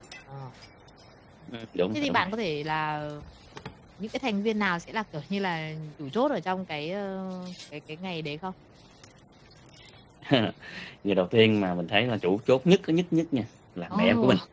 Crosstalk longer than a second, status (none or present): none